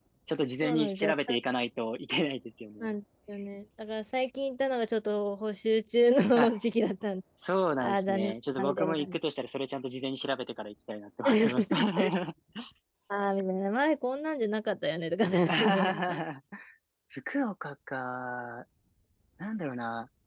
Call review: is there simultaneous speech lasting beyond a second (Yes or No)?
Yes